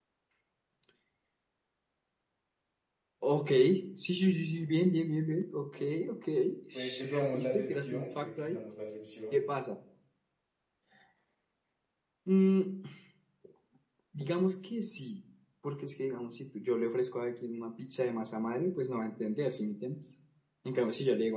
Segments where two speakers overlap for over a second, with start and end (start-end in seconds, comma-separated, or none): 6.7-8.6